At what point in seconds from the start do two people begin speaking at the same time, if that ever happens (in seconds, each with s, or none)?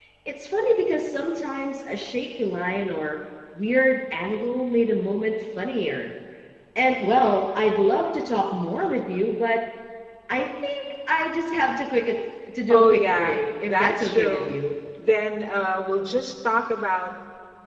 12.7 s